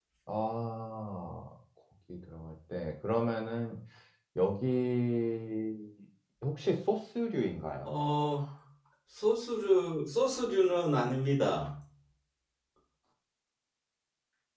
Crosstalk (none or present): none